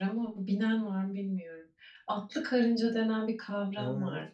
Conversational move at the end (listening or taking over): taking over